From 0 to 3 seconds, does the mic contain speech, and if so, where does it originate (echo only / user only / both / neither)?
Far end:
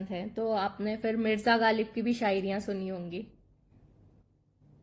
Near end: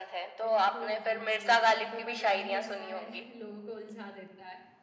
both